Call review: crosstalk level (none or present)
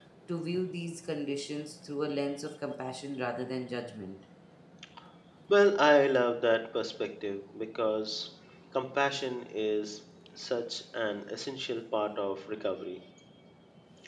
none